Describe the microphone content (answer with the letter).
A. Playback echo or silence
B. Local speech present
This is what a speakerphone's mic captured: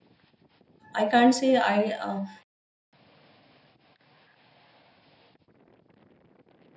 B